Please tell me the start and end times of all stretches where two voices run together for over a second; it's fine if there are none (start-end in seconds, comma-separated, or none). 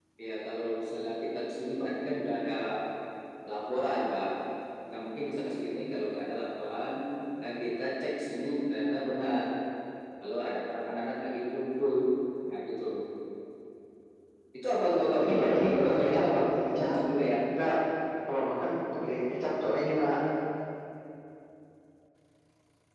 15.2-17.0